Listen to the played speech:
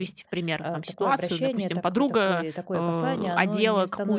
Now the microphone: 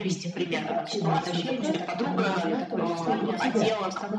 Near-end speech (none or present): present